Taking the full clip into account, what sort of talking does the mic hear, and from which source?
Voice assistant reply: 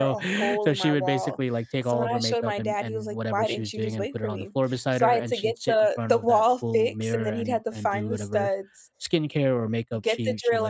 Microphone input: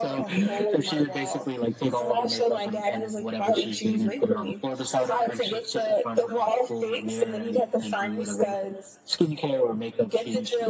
echo only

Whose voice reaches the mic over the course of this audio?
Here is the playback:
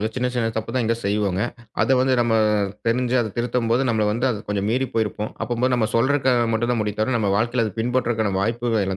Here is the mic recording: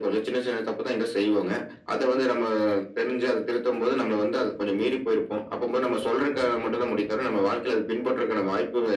echo only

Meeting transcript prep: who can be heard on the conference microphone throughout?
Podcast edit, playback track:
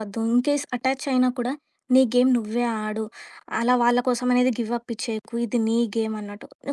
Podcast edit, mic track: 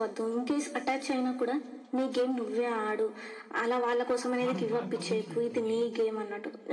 both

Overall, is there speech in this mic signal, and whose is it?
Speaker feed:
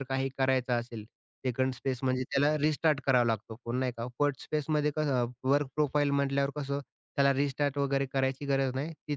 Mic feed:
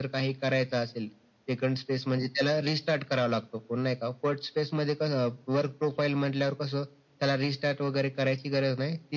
echo only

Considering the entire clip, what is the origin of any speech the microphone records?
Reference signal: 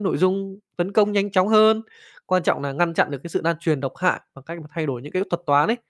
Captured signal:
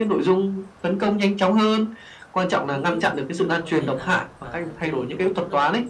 both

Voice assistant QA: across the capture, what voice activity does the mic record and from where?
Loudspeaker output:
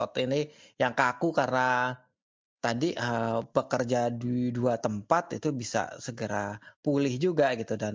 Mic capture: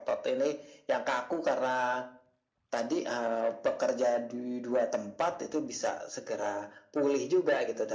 echo only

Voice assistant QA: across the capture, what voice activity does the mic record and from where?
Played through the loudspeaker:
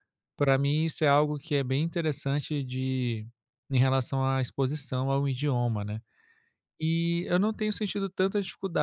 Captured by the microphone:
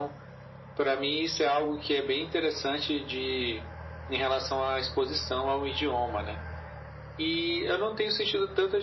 echo only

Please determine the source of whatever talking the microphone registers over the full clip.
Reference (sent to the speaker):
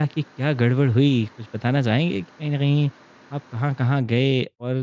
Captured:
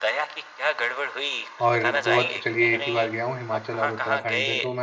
both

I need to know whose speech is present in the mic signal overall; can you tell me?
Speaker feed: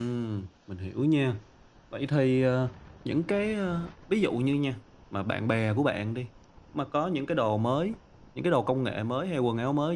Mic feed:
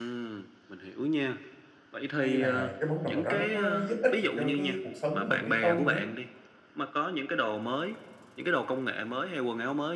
both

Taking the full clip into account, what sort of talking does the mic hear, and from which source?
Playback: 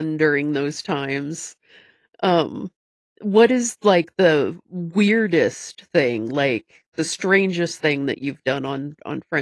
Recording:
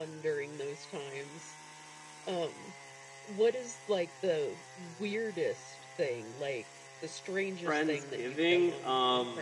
both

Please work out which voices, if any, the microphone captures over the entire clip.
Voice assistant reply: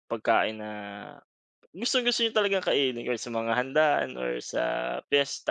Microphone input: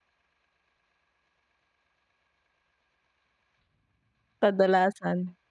user only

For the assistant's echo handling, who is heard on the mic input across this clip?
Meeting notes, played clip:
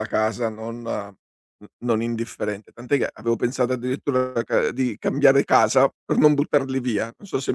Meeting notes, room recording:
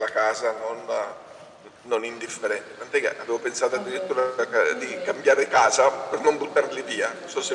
both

